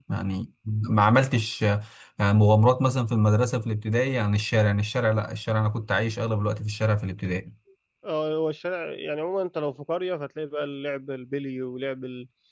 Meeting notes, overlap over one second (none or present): none